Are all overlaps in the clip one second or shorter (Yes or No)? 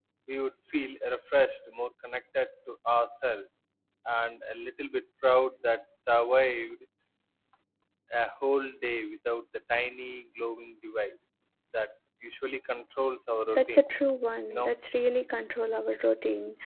Yes